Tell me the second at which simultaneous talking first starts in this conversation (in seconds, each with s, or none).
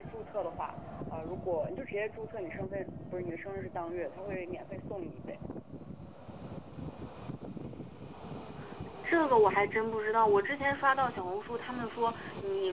none